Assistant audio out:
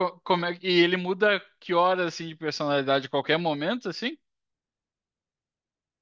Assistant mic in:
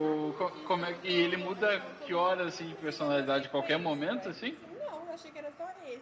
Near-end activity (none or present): present